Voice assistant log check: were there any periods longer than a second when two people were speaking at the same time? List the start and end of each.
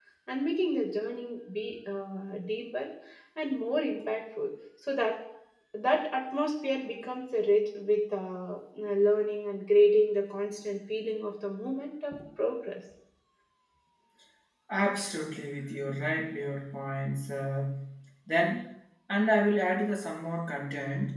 none

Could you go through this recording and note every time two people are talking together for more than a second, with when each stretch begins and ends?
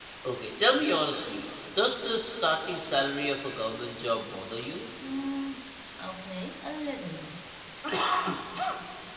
none

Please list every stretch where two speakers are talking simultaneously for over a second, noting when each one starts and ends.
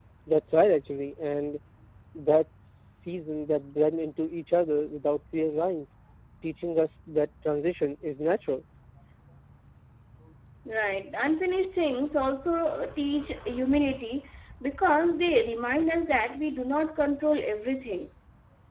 none

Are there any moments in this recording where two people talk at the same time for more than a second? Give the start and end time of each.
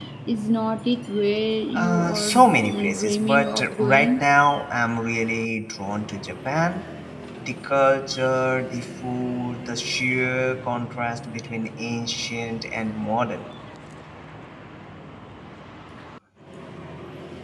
1.7-4.1

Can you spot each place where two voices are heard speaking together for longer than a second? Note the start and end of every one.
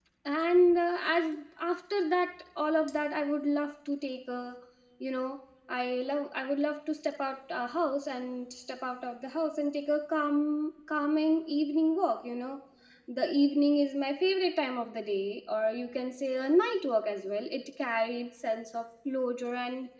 none

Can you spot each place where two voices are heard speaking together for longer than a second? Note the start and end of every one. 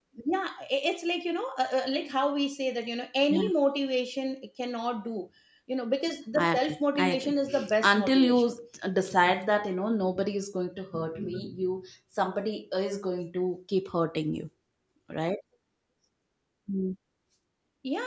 6.4-8.5

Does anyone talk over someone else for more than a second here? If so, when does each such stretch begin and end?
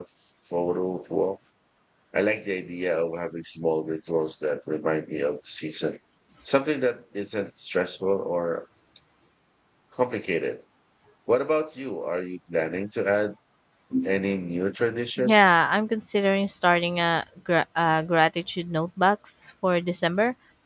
none

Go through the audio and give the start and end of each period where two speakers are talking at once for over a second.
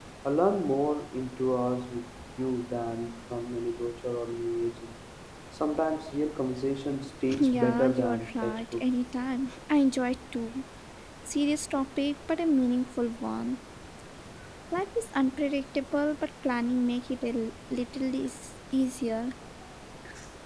7.4-8.8

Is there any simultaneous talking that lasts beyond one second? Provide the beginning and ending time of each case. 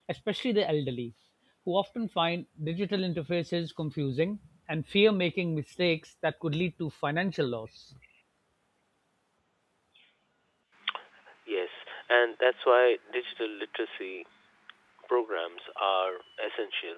none

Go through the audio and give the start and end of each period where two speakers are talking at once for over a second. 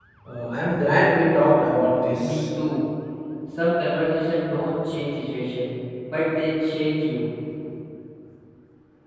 none

